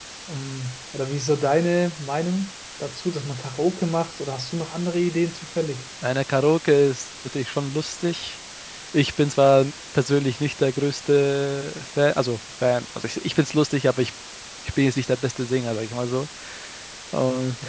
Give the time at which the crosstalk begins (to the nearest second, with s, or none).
none